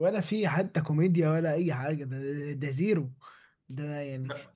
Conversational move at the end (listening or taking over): listening